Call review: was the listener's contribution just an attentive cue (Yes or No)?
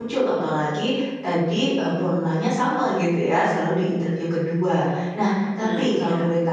Yes